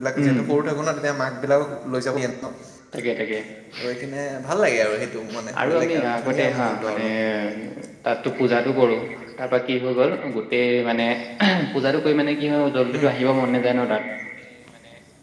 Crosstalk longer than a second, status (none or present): present